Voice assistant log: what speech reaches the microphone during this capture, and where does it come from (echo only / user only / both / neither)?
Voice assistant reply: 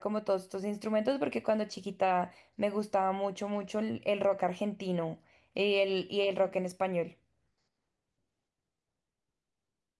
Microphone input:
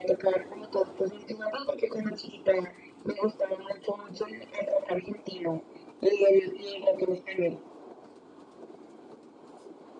echo only